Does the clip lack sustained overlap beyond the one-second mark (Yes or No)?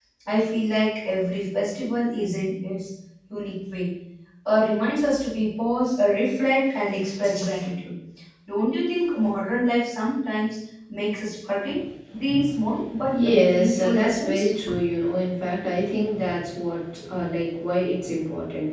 No